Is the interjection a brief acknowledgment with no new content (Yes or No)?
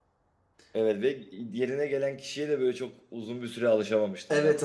No